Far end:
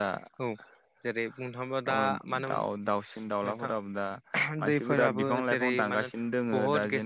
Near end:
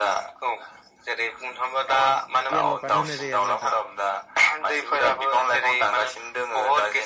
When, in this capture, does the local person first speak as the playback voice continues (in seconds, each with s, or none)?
2.5 s